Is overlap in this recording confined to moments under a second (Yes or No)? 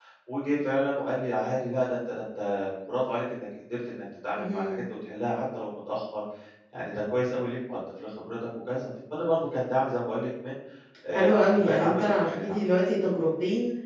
No